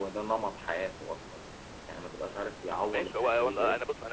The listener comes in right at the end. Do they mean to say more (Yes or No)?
Yes